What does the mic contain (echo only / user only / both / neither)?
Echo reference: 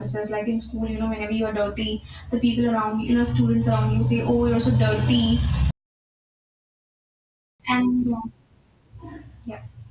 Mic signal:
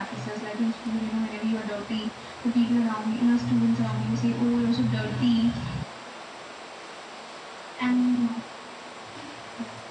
echo only